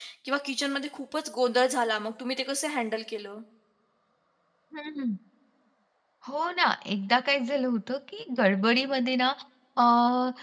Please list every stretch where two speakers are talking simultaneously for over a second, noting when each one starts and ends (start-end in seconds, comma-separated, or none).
none